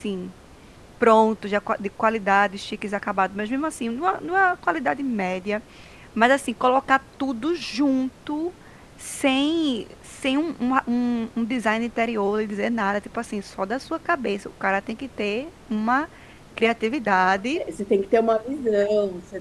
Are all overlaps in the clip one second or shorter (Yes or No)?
Yes